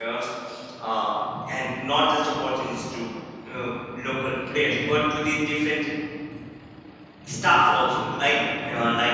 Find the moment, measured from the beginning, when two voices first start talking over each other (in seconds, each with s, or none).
none